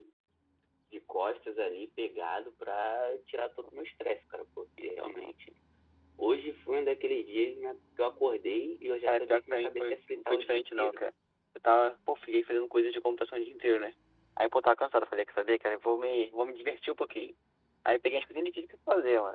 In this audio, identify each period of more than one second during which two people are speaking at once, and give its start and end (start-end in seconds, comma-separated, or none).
9.1-11.0